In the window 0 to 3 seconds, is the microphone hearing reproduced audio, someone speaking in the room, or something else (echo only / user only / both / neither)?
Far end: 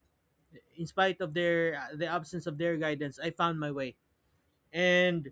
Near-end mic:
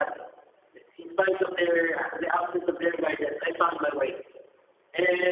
echo only